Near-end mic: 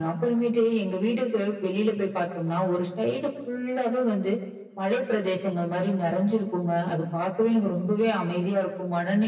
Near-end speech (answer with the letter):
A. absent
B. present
A